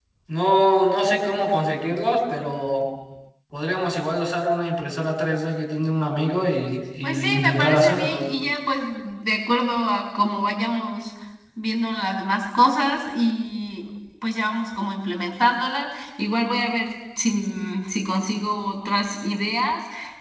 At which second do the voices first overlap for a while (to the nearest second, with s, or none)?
7 s